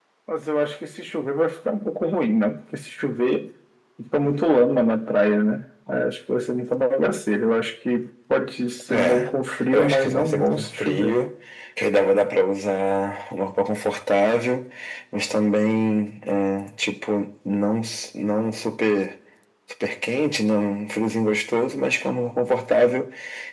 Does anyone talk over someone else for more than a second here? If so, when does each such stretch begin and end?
9.7-11.2

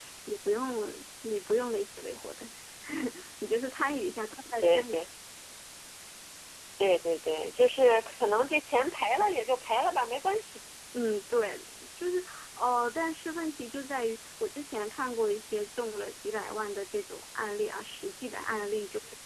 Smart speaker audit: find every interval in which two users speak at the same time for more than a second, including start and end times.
none

